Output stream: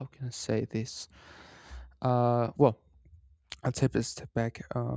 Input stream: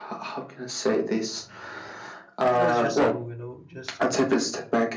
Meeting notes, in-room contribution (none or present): present